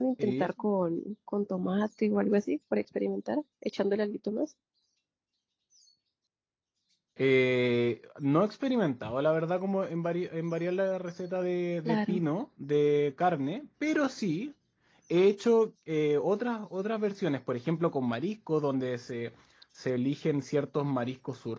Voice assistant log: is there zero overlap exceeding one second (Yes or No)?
Yes